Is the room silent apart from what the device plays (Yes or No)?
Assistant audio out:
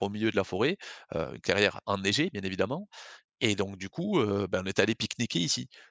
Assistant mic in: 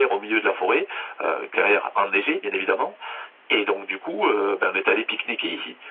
Yes